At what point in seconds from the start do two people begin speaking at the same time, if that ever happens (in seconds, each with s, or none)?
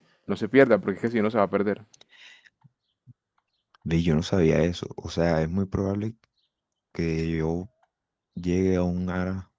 none